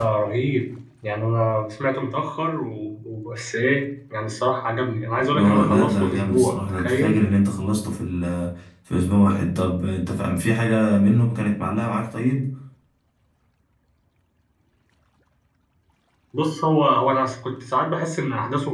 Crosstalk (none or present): present